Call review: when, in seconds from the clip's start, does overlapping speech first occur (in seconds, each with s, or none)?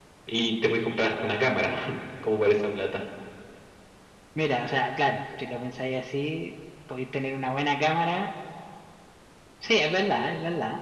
none